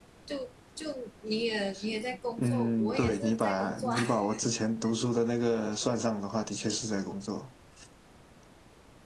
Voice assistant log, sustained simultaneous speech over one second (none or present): present